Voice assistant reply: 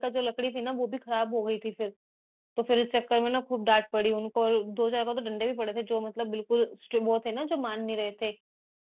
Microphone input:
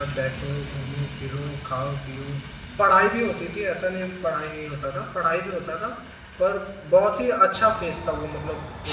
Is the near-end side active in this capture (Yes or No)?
Yes